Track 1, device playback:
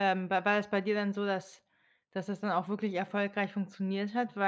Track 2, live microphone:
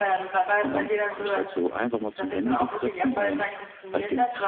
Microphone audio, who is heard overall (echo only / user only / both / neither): both